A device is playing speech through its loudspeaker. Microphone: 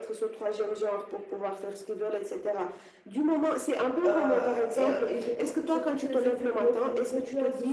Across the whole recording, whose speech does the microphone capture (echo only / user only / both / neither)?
both